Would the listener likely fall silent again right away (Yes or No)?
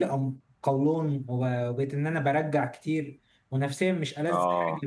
Yes